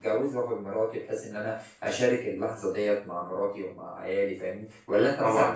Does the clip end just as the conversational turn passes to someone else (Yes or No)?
No